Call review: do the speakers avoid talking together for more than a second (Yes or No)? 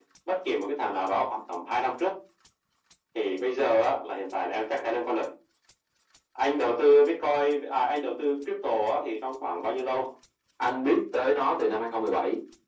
Yes